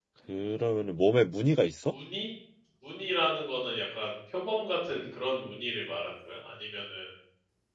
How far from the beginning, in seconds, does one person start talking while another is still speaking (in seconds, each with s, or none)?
none